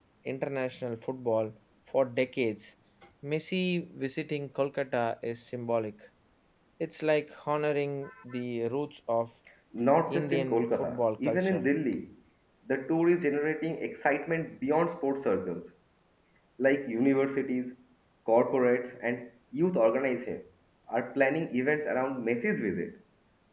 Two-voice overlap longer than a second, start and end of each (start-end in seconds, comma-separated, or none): 10.1-11.7